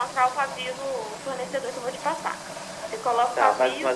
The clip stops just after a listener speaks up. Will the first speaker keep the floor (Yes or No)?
No